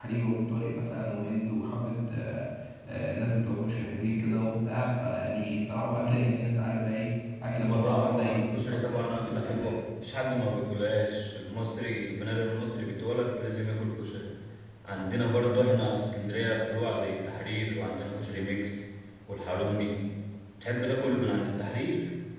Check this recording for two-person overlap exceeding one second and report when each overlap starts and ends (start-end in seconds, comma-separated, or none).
7.7-9.7